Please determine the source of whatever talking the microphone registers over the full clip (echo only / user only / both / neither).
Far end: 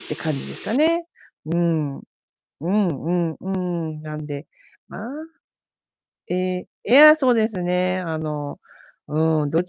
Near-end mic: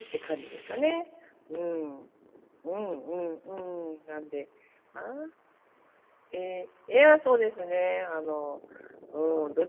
echo only